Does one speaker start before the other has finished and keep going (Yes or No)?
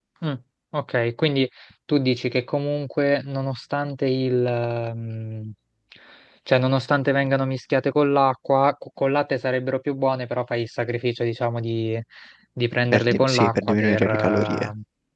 Yes